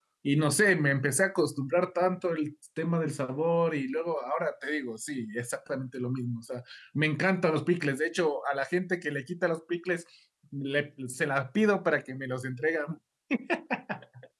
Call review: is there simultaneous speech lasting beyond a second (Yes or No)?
No